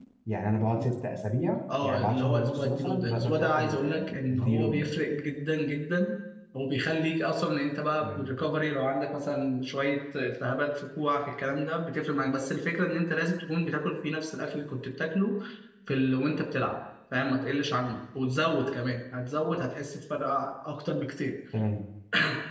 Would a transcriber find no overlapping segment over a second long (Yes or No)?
No